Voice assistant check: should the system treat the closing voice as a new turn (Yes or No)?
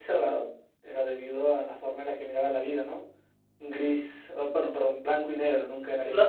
Yes